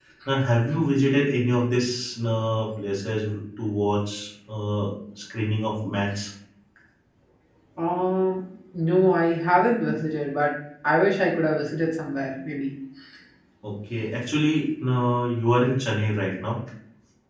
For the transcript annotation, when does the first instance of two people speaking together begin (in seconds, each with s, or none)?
none